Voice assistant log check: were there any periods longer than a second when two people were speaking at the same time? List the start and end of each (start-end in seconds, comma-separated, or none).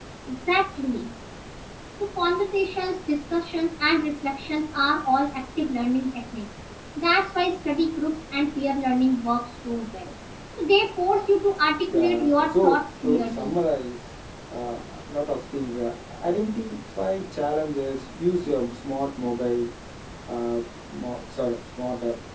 11.9-13.5